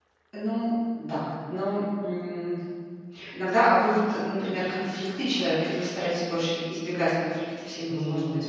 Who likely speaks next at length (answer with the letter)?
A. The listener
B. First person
A